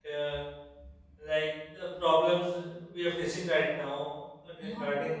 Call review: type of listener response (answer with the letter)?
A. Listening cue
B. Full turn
A